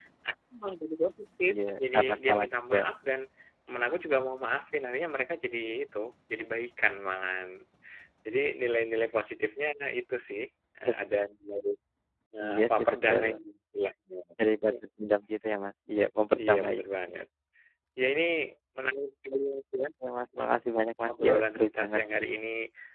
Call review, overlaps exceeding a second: present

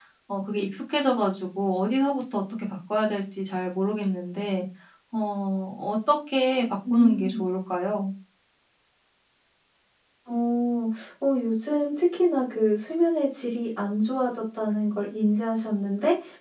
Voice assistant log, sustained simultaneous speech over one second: none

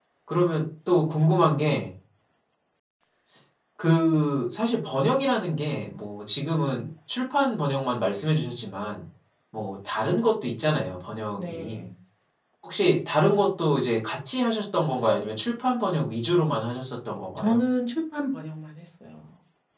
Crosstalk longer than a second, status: none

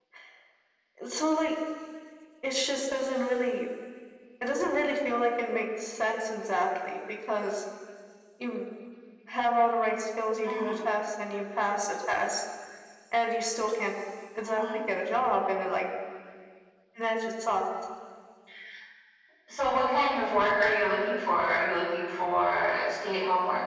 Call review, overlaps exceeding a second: none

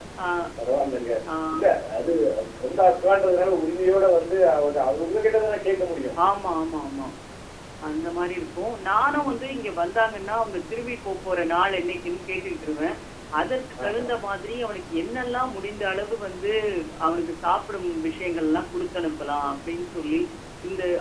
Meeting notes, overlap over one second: none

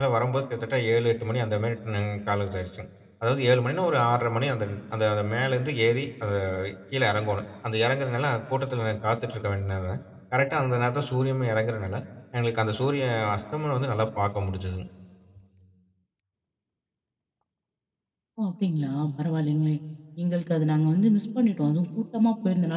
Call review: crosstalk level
none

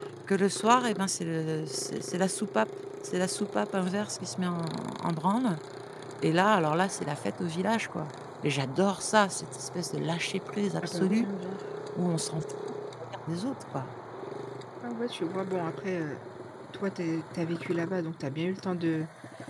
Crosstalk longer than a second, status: none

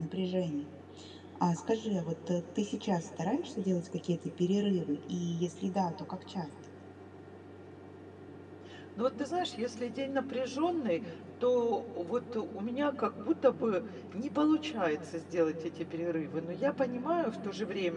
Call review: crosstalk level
none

